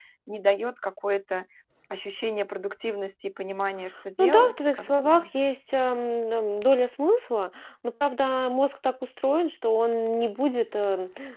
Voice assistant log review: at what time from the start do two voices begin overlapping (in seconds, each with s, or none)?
4.2 s